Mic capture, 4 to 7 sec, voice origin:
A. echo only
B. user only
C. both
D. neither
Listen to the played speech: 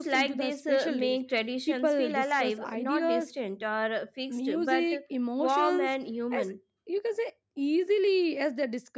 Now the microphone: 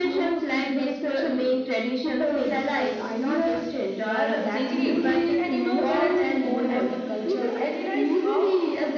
C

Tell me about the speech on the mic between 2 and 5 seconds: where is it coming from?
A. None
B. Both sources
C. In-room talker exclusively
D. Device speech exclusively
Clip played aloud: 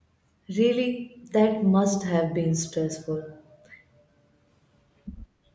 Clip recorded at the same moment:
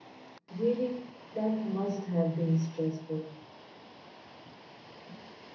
D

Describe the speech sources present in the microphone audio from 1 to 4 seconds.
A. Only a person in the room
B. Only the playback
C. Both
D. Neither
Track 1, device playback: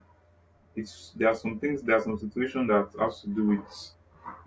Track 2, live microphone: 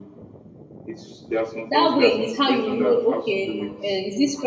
C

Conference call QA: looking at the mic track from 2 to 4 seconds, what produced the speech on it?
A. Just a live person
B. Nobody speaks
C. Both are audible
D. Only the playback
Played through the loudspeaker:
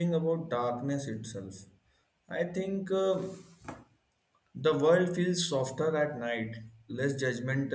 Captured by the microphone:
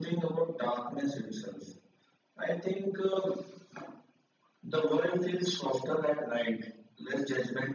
D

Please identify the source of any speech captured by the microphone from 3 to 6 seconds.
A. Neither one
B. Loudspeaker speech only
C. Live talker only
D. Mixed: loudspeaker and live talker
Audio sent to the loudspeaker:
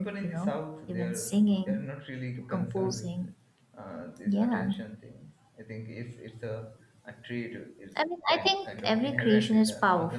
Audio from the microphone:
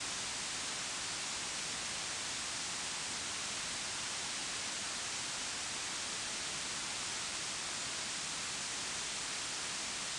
A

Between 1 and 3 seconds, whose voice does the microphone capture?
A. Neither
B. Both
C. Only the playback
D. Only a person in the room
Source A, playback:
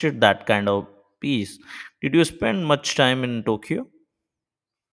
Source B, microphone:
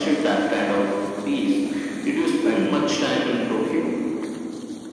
C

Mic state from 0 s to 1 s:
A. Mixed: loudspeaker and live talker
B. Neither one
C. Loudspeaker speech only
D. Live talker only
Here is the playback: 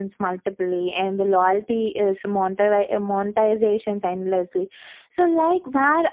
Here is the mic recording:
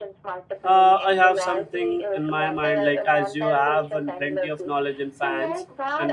A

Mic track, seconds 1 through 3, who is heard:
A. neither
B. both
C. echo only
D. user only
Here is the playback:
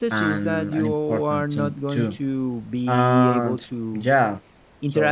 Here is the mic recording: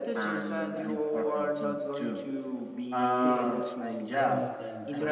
C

